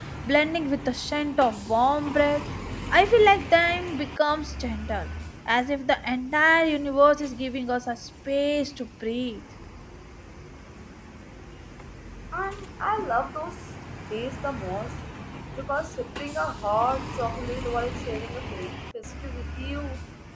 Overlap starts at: none

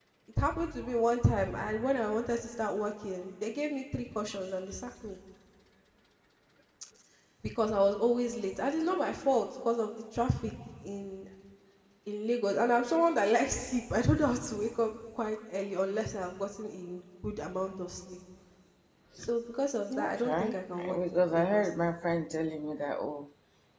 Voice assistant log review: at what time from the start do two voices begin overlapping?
19.9 s

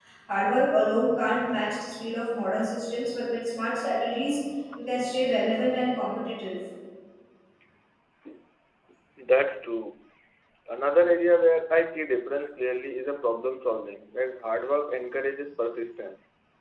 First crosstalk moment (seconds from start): none

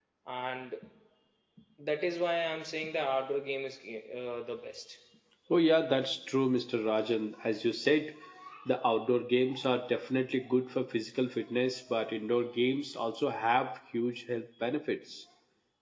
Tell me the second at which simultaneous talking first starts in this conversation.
none

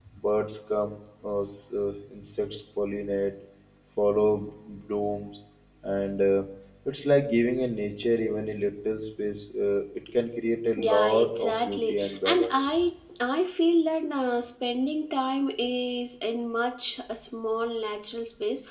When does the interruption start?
10.8 s

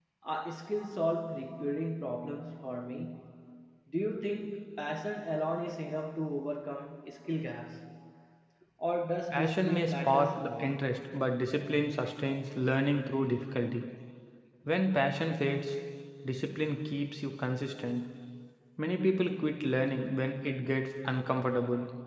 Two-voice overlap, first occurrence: 9.3 s

